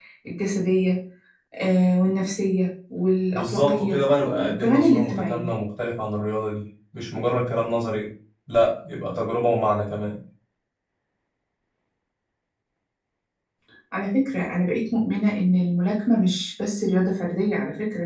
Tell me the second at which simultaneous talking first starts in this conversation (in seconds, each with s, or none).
3.3 s